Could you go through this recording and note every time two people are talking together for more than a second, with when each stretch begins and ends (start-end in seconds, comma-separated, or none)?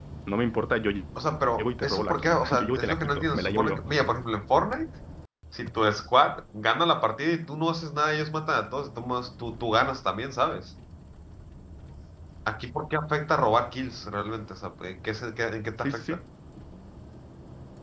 1.6-3.8